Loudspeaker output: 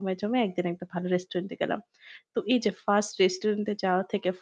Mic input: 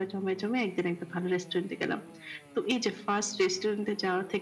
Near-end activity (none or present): none